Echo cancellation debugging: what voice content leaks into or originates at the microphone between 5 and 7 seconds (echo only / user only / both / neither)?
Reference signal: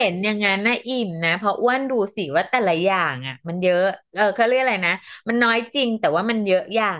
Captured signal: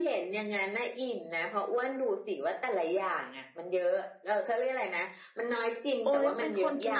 both